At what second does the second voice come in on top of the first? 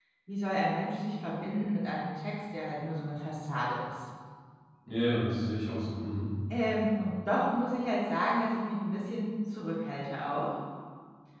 none

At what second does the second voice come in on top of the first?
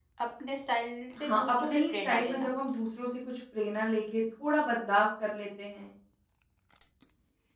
1.2 s

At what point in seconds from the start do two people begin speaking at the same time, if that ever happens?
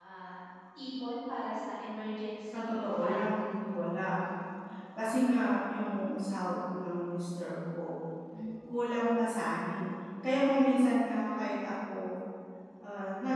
2.5 s

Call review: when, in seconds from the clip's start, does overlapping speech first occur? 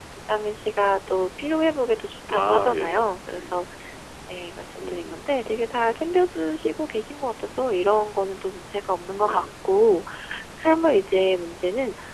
2.3 s

